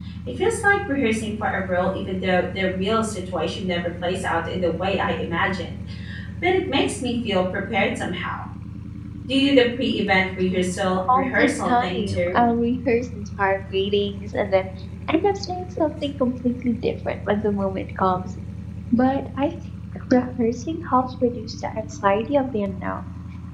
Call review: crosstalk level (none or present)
present